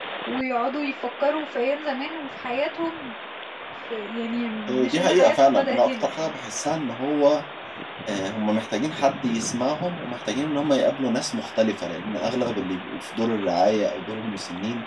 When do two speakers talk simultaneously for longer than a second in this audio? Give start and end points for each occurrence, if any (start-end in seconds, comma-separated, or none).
4.8-6.3